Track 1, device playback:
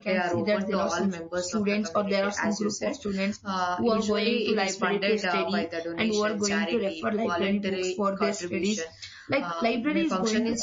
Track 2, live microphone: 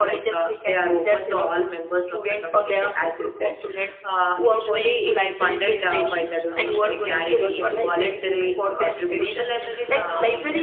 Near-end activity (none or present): present